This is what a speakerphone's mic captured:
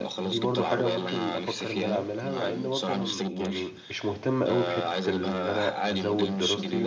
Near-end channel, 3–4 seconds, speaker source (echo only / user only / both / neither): both